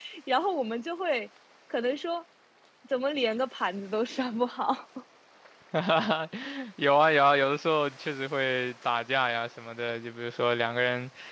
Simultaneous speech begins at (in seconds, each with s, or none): none